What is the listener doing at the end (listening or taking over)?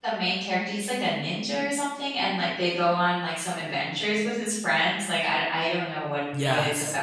taking over